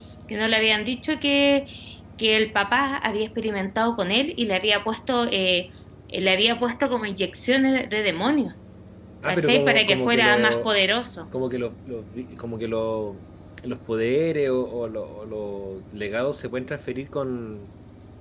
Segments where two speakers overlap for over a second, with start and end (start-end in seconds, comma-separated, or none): 9.3-10.7